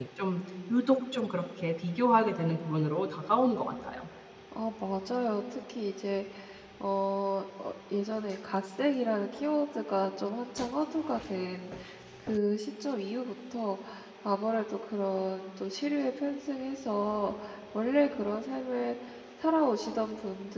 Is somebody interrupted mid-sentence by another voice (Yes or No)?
No